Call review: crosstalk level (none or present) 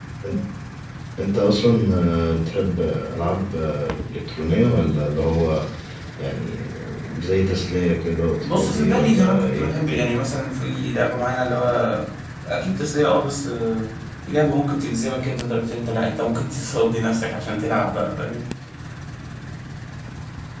present